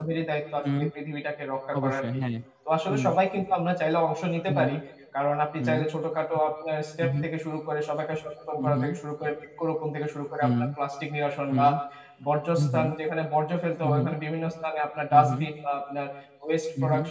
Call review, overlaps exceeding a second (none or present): none